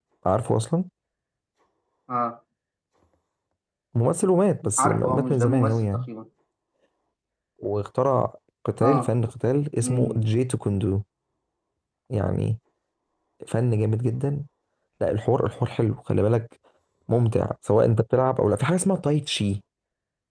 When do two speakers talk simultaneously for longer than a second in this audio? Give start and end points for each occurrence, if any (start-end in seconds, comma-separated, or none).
4.8-6.1